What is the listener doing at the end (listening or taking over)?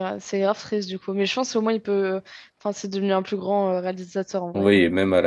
taking over